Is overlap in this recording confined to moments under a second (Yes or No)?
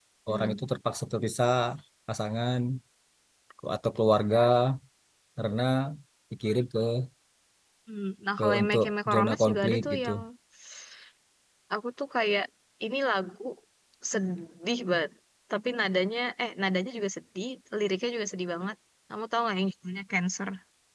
No